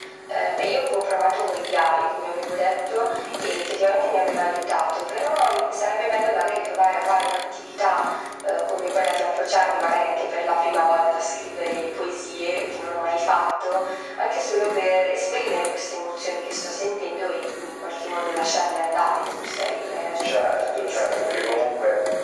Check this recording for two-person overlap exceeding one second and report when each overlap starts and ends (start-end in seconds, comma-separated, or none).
20.2-21.7